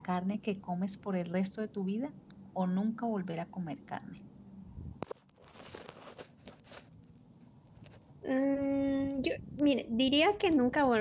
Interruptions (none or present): none